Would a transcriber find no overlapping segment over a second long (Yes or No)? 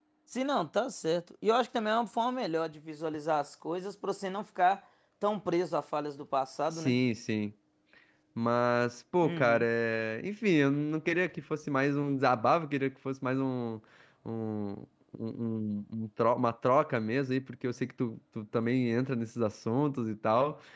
Yes